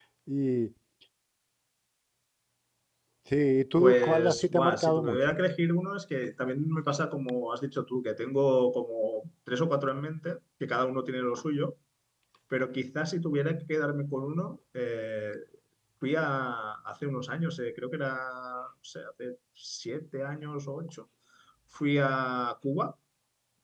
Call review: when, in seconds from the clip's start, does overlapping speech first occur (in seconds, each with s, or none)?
3.8 s